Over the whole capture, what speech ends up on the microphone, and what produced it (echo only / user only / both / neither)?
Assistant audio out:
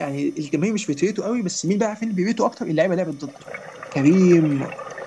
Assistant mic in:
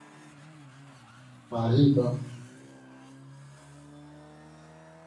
user only